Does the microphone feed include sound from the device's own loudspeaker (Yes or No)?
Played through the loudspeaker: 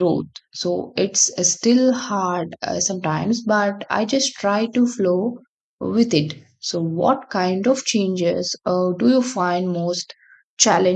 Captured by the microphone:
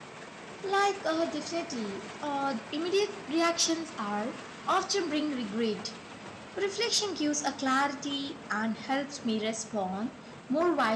No